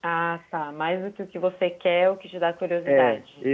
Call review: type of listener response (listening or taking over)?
taking over